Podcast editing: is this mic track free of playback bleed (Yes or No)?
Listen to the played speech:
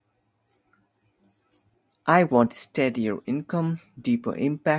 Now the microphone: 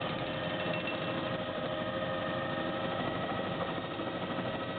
Yes